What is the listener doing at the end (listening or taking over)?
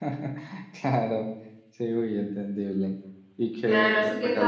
taking over